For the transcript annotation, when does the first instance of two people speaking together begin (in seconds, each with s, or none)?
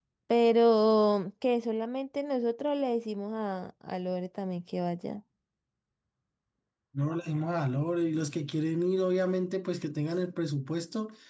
none